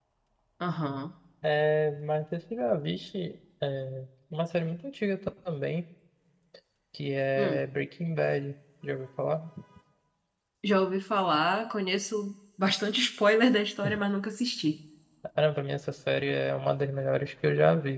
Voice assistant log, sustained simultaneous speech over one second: none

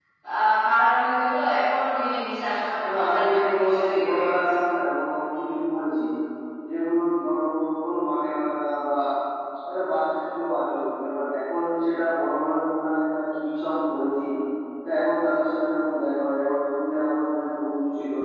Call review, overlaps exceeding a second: present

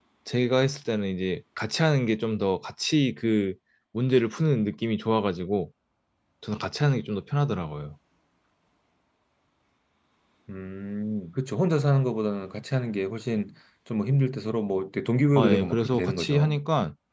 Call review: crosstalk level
present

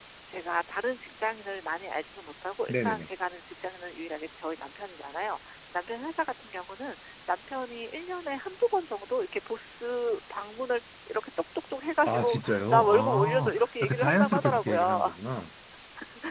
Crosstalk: present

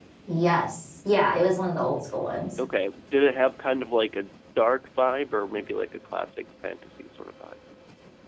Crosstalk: none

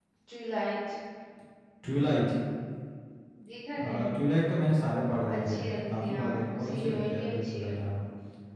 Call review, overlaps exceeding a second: present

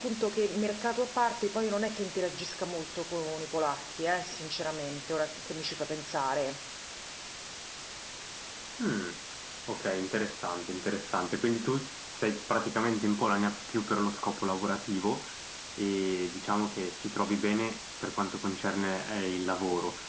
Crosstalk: none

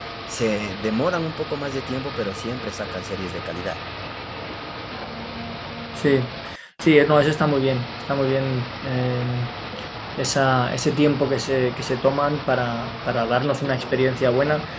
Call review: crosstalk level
none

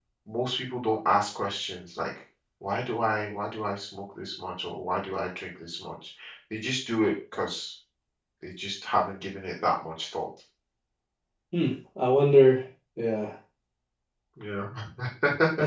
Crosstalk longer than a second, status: none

